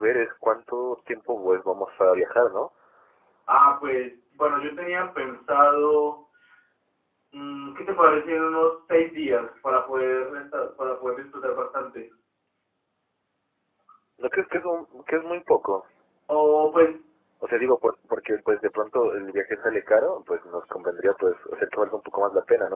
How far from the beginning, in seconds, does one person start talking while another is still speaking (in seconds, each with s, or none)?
none